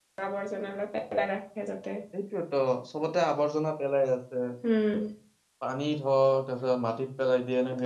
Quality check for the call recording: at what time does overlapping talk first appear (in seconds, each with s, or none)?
none